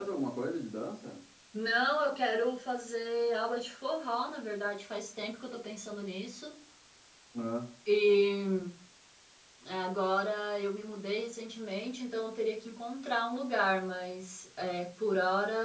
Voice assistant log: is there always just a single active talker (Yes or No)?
Yes